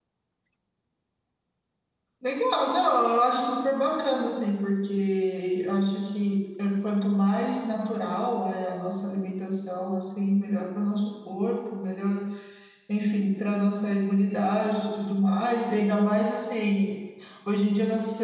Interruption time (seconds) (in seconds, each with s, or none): none